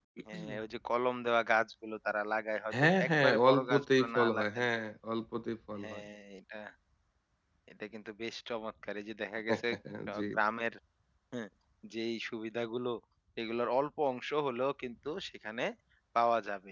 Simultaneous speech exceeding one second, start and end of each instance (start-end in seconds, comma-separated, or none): 3.0-4.7